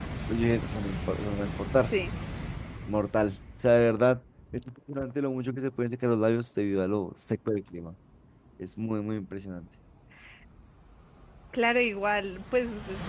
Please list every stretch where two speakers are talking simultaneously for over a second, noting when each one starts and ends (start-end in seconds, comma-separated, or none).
none